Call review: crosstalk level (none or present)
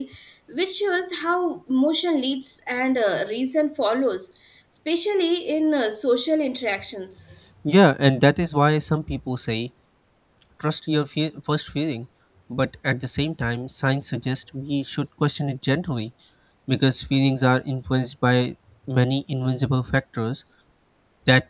none